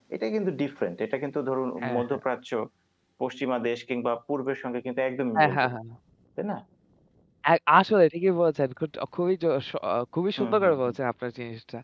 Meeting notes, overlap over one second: none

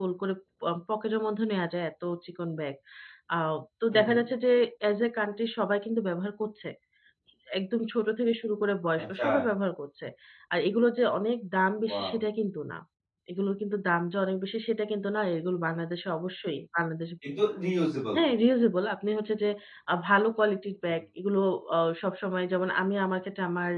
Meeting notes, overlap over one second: none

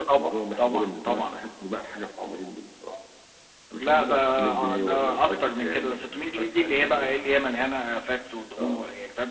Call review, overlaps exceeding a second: present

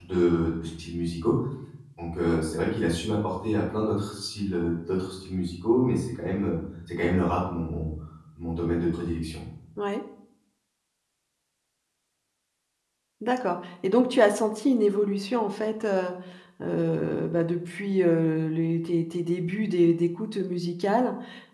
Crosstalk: none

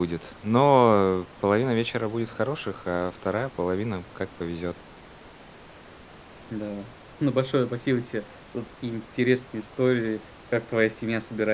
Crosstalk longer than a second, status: none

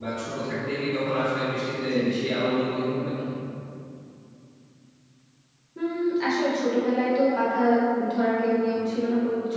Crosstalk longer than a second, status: none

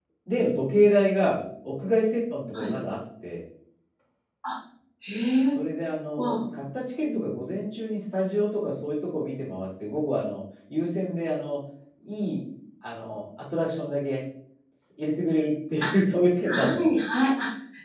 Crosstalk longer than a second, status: none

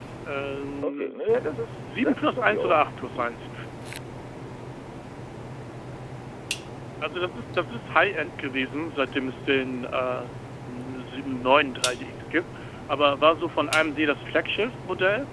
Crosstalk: present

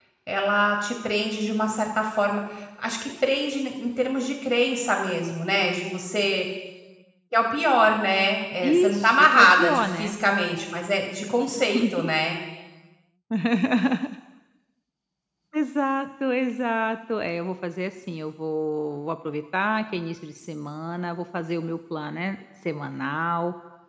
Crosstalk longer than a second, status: present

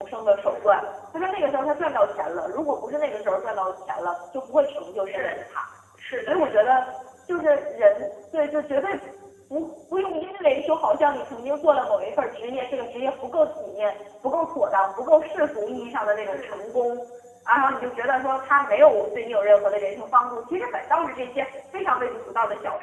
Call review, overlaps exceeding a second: none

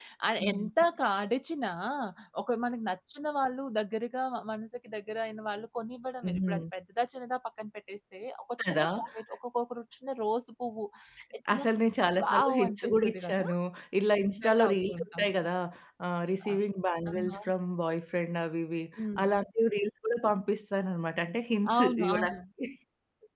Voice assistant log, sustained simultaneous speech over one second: present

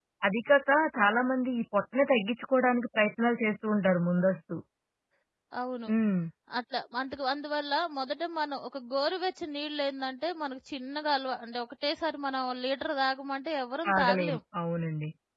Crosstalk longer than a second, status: none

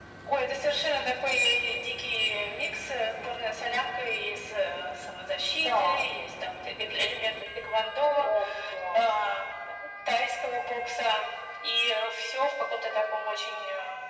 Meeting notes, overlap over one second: none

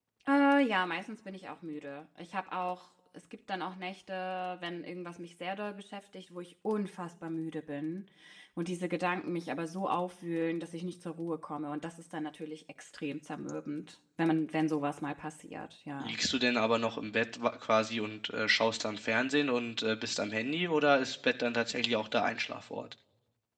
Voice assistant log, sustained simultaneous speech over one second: none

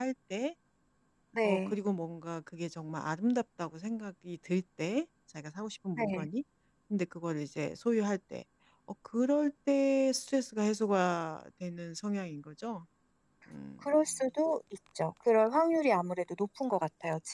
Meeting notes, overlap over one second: none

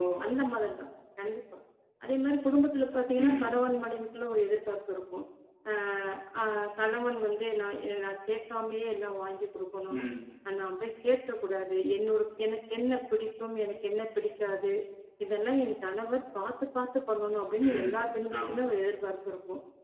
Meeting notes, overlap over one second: none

